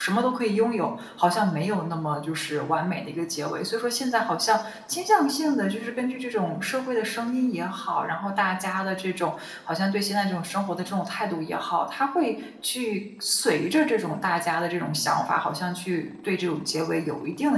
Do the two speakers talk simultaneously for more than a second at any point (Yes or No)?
No